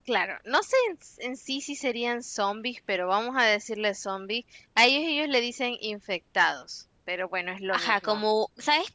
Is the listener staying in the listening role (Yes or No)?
No